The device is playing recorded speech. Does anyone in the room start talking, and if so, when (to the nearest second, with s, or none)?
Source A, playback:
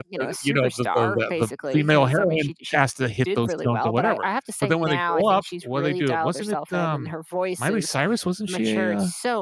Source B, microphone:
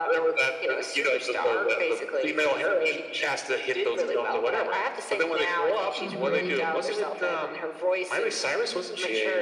6 s